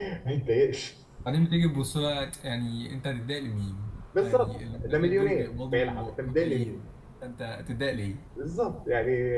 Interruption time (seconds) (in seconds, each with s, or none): 4.1 s